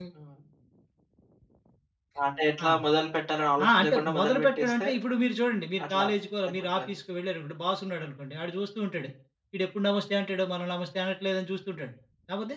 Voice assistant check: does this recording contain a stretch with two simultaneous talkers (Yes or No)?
Yes